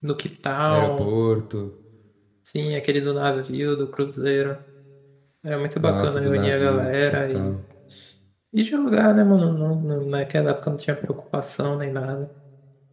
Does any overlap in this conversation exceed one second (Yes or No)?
Yes